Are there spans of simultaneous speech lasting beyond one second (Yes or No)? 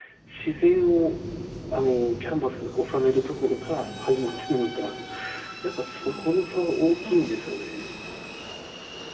No